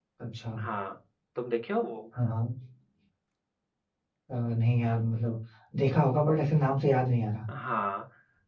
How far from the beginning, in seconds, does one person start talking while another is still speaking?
none

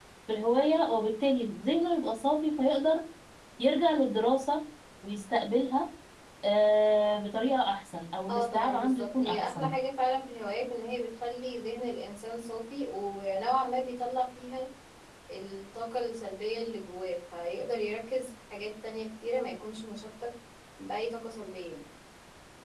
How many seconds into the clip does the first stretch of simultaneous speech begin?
8.3 s

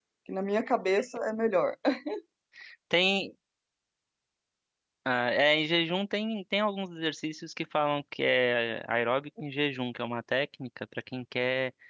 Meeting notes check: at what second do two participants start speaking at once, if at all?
none

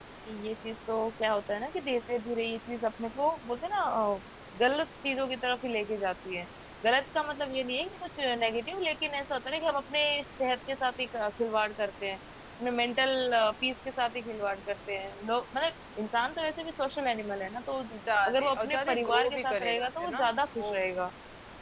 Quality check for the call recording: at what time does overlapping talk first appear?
18.2 s

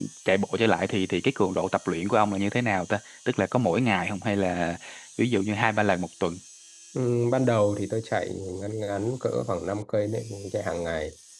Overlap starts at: none

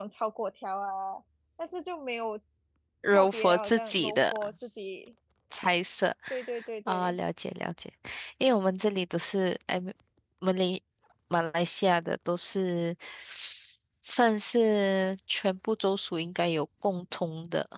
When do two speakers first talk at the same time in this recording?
3.1 s

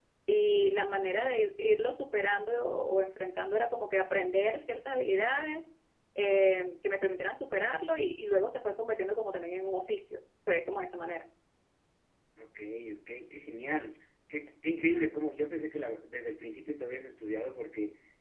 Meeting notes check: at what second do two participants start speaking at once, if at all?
none

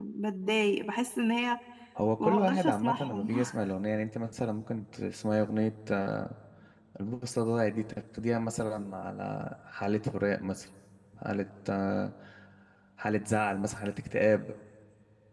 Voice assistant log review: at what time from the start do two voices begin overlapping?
2.2 s

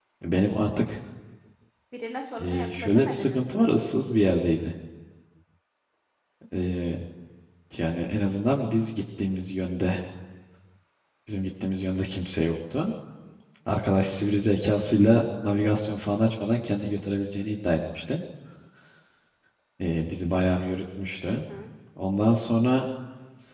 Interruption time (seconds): 2.4 s

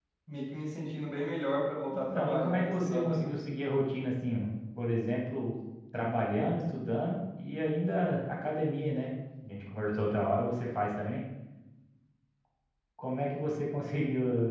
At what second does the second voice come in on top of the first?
1.9 s

